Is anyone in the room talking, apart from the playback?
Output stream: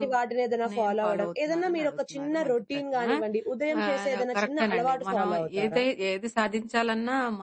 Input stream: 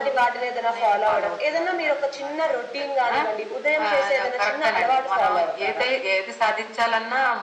No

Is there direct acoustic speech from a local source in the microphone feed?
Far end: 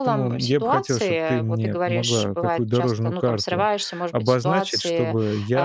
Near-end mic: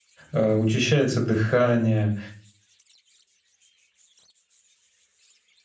Yes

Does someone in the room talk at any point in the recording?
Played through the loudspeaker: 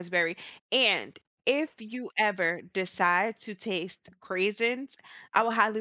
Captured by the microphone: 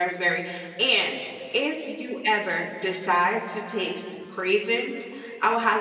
No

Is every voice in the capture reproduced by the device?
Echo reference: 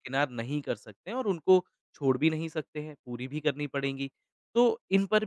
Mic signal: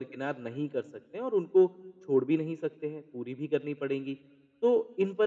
Yes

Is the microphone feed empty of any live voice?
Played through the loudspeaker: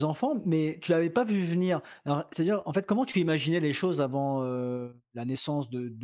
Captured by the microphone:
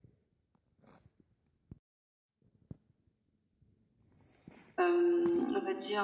No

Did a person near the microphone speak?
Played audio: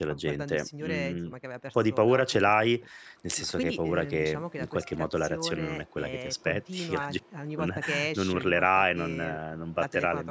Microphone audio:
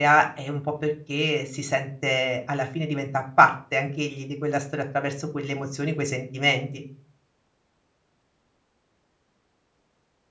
Yes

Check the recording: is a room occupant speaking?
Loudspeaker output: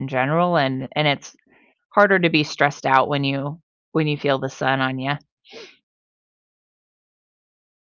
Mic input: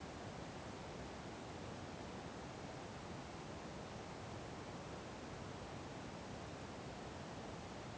No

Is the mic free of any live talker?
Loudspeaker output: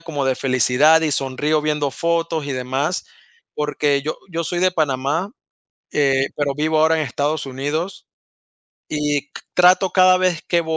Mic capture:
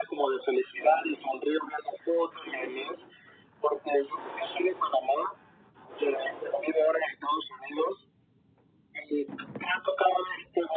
Yes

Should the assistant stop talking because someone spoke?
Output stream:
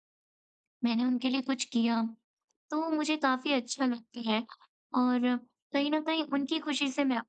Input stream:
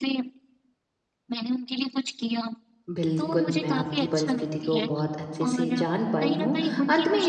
Yes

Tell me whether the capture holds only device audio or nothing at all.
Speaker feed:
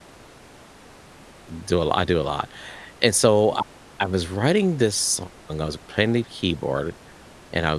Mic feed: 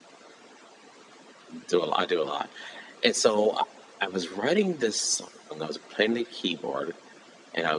Yes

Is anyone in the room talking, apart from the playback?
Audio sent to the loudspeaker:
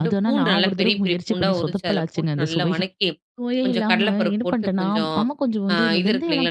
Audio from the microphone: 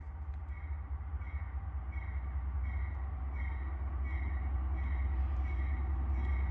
No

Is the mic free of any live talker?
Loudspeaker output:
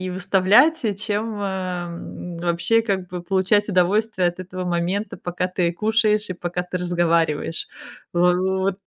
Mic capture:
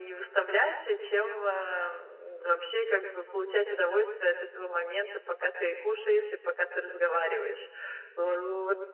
Yes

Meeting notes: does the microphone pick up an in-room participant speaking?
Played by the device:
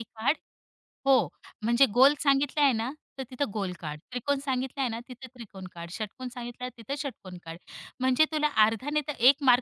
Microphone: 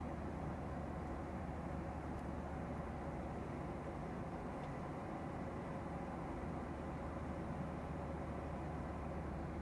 No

